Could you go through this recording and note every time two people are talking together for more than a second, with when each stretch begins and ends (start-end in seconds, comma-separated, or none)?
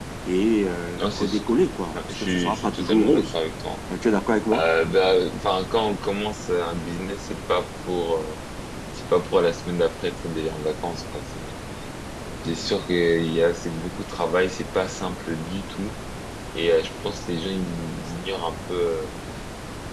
1.9-3.2